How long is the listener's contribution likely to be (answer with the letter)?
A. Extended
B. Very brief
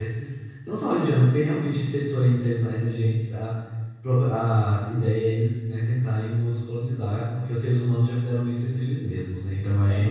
A